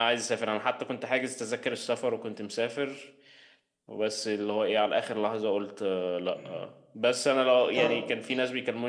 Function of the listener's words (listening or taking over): listening